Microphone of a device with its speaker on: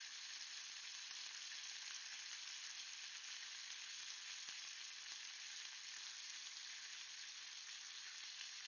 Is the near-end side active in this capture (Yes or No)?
No